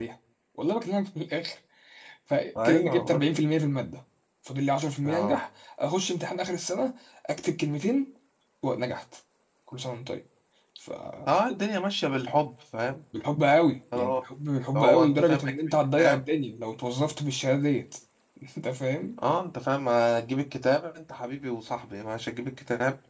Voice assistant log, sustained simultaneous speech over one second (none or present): present